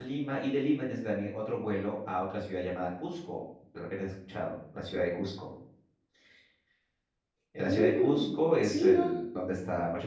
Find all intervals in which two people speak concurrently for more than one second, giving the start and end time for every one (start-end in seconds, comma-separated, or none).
7.6-9.2